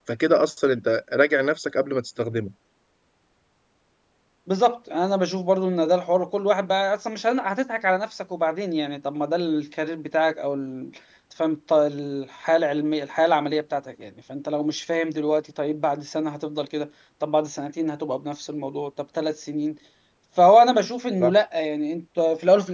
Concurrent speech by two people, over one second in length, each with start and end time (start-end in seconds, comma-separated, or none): none